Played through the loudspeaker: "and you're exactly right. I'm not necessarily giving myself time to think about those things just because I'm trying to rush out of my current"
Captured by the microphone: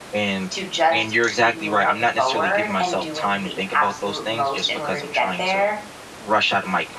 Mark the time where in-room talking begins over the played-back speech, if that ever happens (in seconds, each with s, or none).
0.5 s